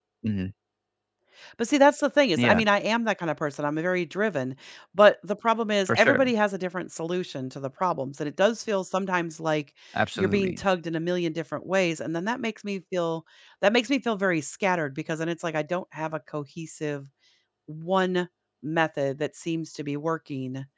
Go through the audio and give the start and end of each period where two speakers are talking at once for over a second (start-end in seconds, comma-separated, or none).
none